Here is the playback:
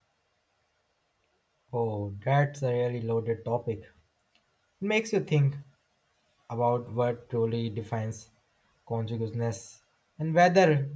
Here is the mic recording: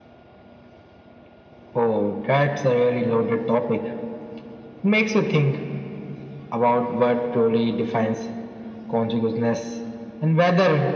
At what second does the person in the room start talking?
none

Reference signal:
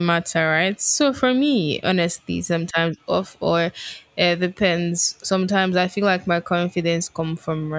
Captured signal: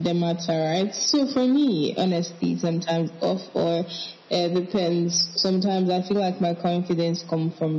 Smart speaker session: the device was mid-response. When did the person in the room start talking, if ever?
none

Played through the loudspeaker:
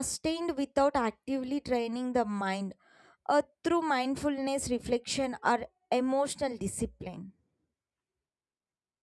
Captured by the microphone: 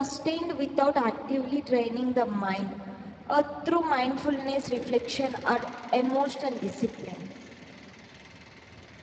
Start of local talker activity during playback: none

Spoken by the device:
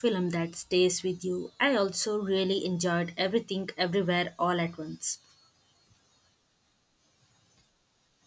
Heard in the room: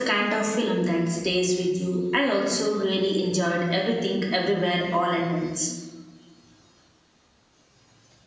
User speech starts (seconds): none

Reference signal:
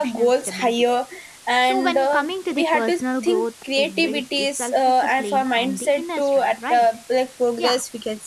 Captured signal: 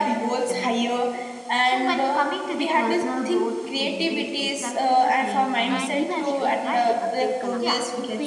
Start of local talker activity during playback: 5.7 s

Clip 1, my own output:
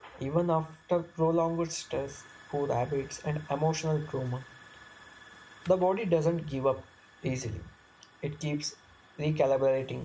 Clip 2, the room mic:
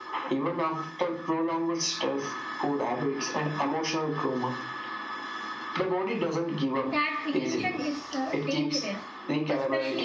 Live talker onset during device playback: 6.8 s

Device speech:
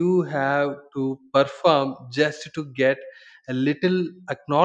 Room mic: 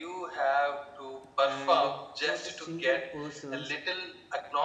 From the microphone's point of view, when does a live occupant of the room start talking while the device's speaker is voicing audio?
1.4 s

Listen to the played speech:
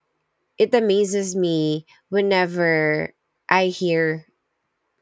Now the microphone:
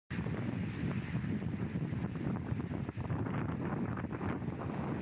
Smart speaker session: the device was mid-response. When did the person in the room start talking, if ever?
none

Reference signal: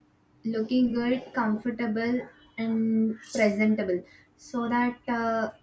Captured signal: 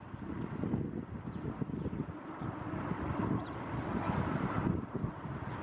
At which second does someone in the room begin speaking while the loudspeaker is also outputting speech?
none

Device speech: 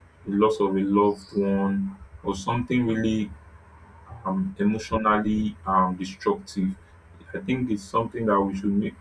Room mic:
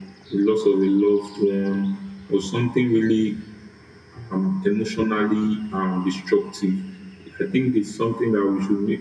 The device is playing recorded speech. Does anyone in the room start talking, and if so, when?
none

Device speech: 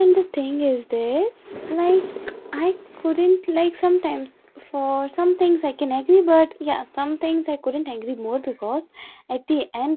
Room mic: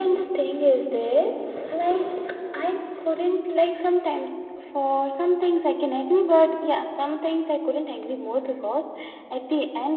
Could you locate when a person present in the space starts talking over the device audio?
none

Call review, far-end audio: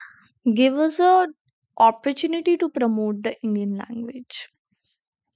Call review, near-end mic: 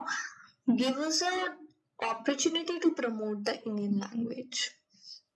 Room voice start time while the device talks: none

